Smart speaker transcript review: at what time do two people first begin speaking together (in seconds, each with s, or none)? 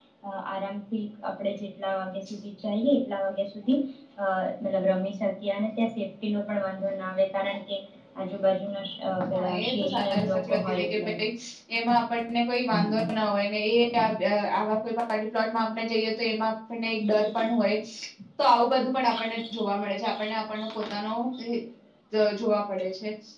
9.3 s